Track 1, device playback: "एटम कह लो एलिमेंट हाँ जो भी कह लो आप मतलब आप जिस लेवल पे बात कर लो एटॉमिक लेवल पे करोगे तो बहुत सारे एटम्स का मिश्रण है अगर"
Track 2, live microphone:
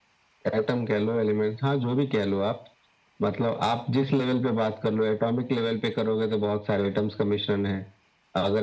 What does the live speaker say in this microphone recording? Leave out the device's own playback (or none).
none